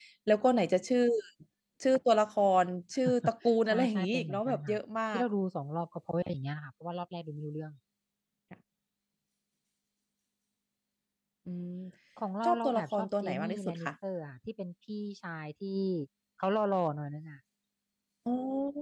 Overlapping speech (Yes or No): Yes